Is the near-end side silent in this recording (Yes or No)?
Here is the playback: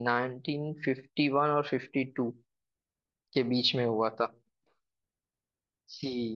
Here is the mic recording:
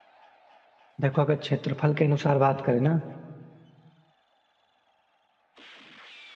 No